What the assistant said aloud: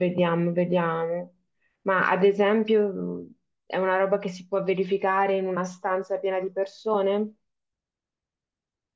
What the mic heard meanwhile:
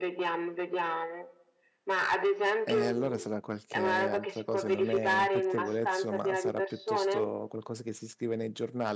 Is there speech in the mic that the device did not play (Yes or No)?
Yes